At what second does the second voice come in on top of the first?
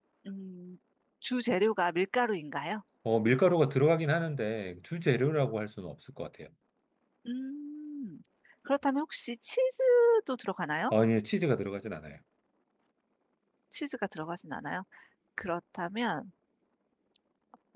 none

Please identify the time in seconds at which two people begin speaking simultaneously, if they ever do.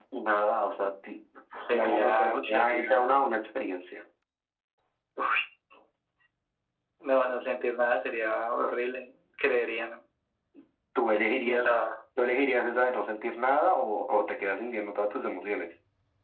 1.7 s

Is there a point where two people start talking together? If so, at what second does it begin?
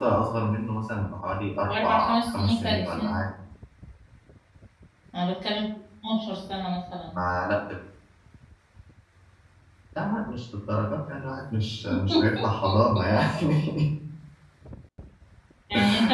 1.6 s

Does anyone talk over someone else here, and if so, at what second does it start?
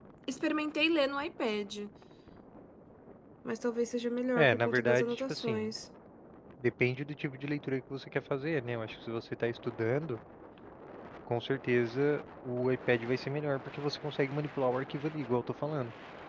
4.3 s

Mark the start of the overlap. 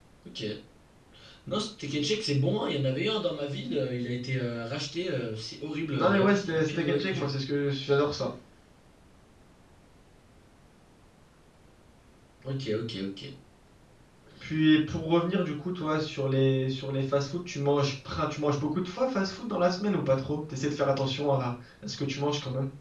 6.0 s

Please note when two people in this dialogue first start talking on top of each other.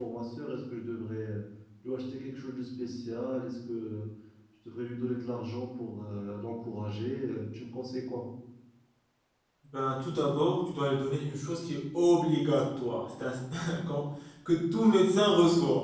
none

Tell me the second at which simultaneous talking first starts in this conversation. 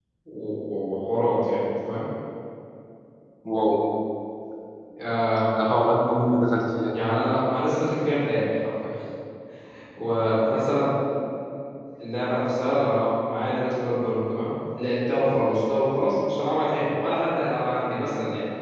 none

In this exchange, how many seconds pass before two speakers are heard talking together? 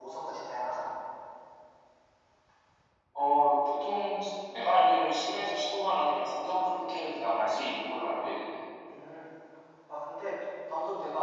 none

